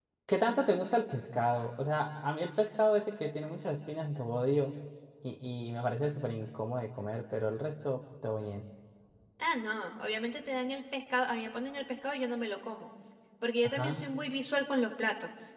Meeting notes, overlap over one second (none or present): none